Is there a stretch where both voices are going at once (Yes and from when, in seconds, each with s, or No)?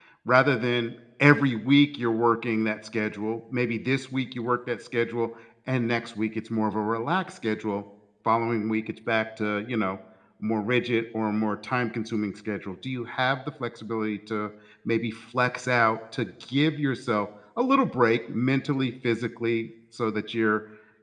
No